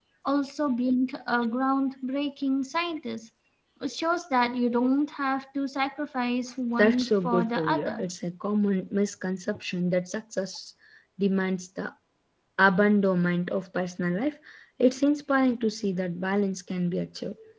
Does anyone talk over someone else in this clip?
Yes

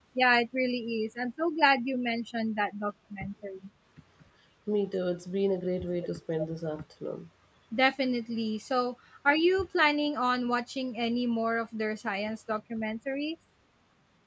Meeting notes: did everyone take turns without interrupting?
Yes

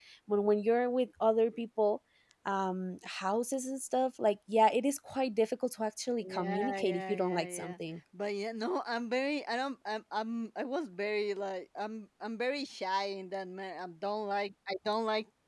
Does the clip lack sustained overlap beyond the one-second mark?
No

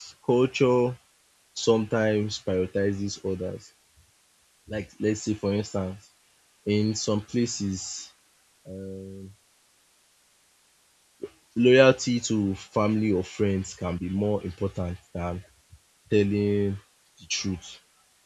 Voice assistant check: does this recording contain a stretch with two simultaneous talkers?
No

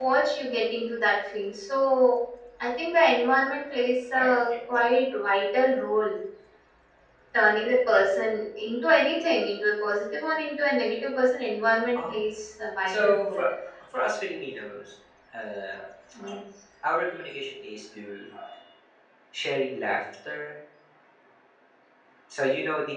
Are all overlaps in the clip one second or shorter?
Yes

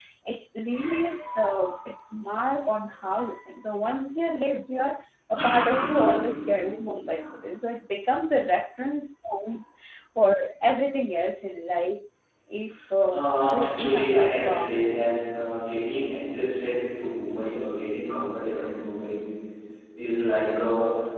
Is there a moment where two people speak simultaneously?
Yes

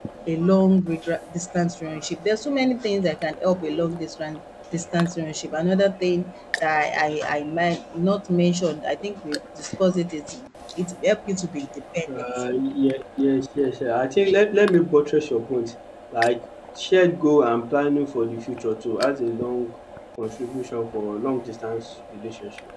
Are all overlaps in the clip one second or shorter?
Yes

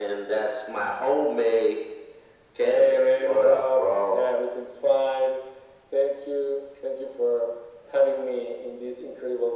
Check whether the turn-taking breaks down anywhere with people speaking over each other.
Yes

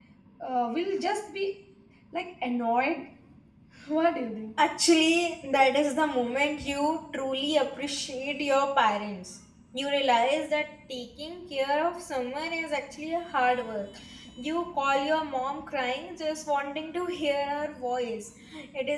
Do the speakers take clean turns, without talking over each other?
Yes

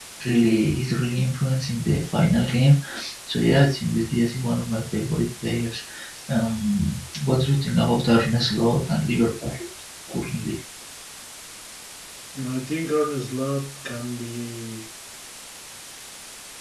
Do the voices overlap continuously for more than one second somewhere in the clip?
No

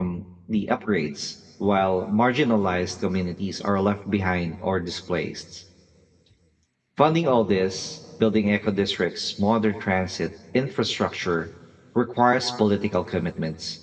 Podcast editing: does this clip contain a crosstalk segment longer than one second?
No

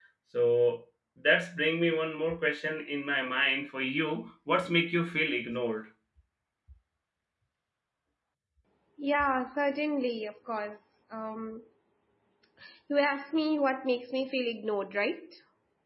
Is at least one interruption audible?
No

